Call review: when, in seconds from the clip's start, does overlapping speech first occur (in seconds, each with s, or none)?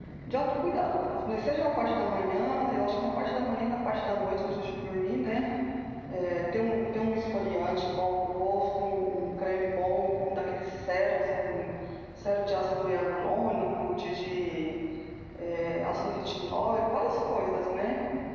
none